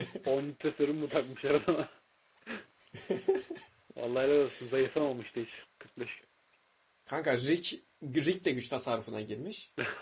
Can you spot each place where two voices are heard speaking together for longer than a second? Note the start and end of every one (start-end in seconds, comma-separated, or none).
none